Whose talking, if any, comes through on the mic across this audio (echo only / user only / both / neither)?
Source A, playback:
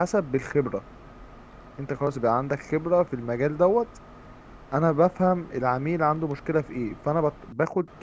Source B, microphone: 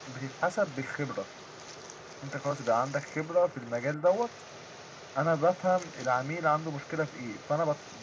echo only